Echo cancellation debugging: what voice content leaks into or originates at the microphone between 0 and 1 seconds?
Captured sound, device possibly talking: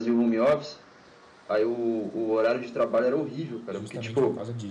echo only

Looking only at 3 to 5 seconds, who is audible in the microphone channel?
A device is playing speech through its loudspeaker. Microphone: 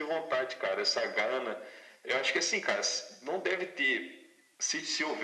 echo only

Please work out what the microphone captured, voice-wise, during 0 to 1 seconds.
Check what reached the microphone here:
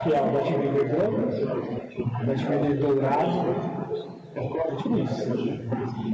both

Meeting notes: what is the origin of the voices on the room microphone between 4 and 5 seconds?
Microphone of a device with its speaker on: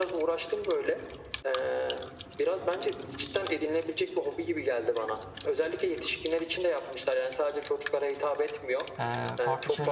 echo only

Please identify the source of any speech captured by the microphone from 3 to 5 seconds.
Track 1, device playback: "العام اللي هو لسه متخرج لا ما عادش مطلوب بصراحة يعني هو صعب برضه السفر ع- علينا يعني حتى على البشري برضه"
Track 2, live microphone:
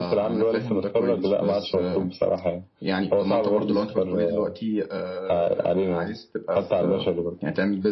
both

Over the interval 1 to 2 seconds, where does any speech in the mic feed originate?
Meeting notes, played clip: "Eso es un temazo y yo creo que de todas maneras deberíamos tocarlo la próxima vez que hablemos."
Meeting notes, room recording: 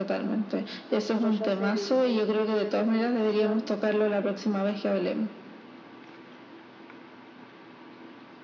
both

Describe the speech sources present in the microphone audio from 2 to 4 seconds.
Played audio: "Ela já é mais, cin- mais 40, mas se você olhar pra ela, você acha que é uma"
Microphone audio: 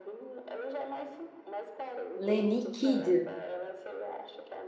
both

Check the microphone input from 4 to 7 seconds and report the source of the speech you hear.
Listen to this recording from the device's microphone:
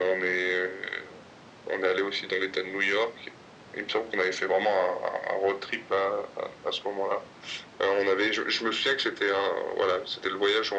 echo only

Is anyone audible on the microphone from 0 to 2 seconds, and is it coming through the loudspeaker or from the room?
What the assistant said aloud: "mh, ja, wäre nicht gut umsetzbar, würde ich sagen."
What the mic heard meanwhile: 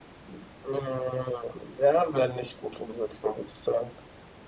echo only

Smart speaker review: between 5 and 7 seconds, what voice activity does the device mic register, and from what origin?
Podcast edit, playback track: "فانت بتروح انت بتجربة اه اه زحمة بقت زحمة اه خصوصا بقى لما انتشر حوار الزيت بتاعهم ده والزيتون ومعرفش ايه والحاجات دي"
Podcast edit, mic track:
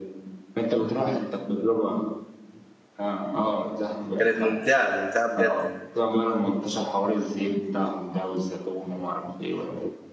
both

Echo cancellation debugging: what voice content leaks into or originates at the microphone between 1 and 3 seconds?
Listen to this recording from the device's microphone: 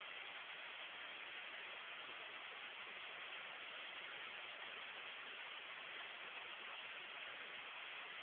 neither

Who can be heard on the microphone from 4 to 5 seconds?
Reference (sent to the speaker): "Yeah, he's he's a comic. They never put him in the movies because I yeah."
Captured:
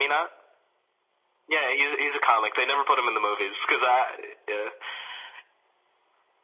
echo only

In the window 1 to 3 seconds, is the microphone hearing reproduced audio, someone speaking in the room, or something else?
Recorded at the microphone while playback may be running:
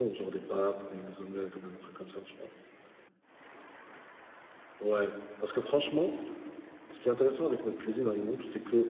user only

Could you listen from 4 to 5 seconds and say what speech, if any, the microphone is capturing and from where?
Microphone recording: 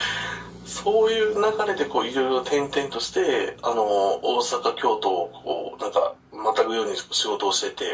echo only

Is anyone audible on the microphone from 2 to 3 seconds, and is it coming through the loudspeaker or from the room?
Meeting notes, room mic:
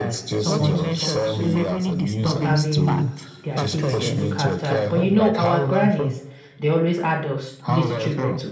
both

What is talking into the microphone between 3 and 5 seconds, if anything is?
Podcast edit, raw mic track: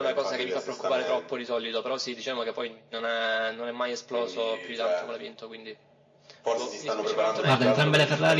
echo only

